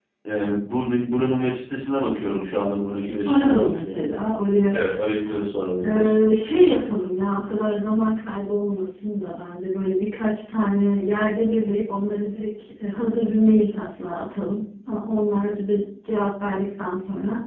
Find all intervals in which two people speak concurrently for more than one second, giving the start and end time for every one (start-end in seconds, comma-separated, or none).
2.2-4.1